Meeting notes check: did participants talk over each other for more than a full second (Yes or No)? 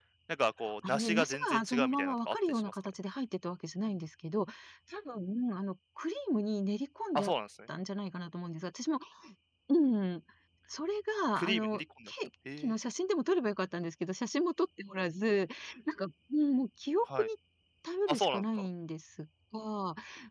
Yes